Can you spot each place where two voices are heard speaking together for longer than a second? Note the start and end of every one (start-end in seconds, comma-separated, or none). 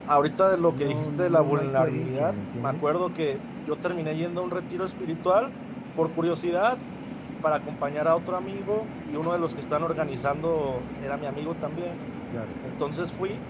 0.6-2.9